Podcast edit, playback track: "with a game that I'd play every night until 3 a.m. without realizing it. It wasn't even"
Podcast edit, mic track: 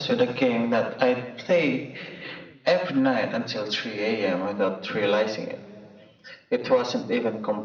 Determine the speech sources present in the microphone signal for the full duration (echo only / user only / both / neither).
echo only